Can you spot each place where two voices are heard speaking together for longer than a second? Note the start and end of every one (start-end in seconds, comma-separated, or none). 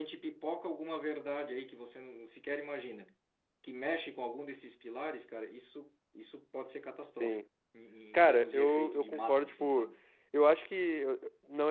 8.1-9.9